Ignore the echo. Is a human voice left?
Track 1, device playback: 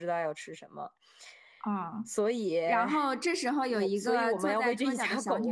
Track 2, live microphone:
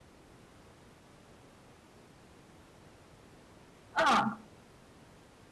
Yes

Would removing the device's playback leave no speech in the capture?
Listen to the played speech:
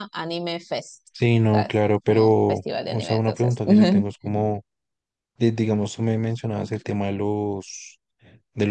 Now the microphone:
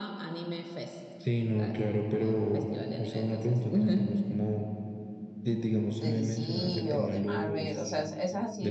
No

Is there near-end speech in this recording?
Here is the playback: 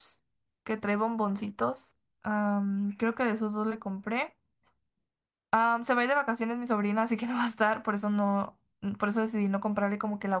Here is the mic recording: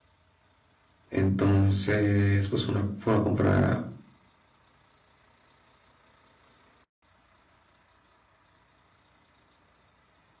Yes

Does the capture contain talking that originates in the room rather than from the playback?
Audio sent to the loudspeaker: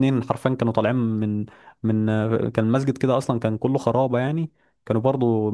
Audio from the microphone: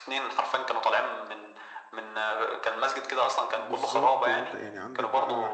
Yes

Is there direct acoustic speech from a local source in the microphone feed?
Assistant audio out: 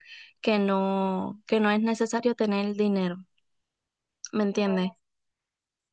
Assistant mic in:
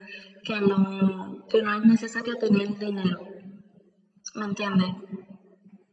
No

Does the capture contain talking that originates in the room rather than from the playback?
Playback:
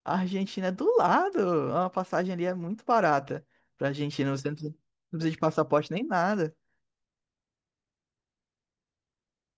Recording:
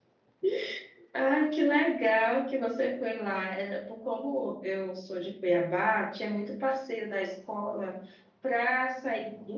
Yes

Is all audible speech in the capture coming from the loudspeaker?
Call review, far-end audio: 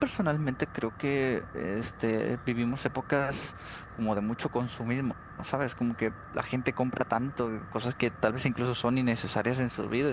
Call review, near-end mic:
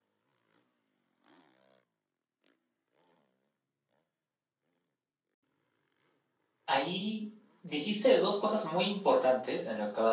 No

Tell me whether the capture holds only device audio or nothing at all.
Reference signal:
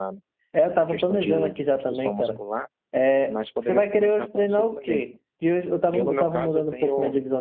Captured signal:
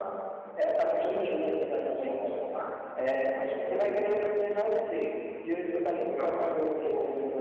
Yes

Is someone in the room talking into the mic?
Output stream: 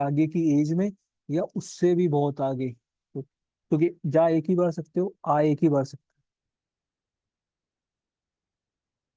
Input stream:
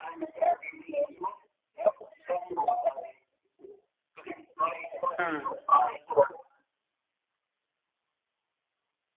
Yes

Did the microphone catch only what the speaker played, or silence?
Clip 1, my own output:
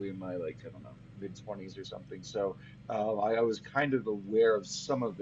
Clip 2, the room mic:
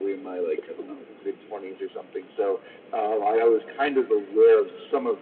Yes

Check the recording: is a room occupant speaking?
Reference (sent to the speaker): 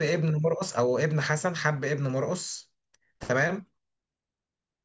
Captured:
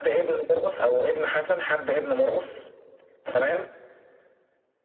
No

